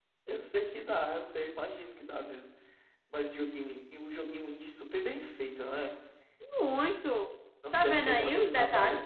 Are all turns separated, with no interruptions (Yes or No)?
No